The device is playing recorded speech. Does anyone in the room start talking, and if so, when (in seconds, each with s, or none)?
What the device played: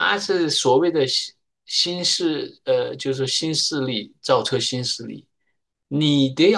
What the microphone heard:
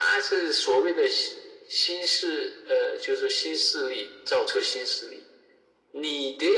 none